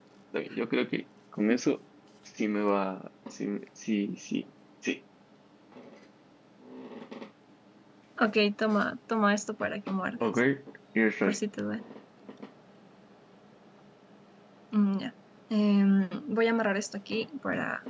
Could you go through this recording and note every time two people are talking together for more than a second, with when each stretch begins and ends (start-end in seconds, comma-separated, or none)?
none